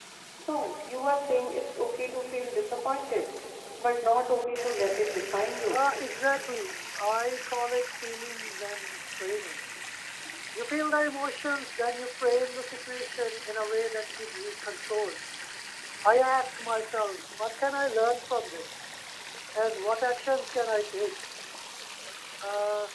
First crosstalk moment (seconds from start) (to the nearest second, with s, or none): none